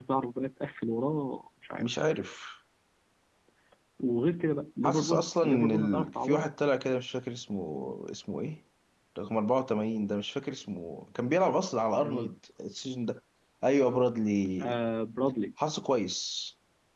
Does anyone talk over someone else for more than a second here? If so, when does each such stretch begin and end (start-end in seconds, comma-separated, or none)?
4.8-6.5